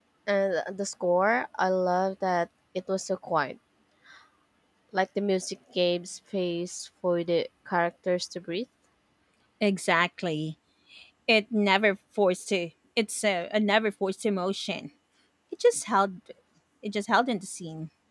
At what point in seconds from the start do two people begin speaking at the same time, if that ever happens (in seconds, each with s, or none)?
none